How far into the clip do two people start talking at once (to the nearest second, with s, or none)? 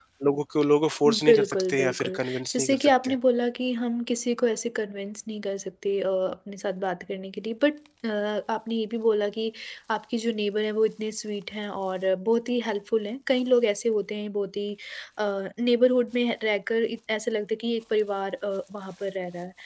1 s